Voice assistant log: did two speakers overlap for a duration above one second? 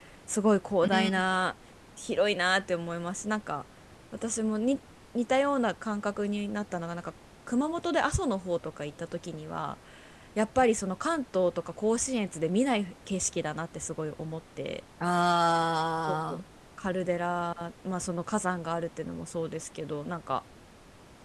No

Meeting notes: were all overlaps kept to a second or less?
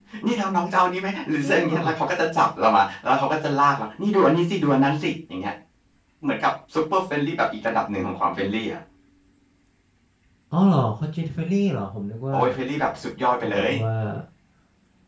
Yes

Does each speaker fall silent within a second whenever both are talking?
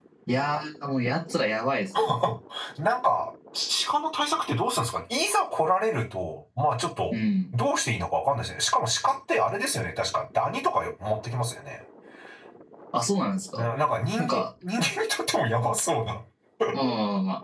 Yes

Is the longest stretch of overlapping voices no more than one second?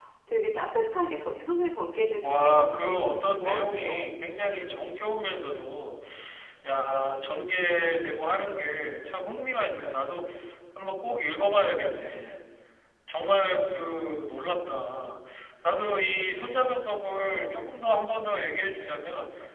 No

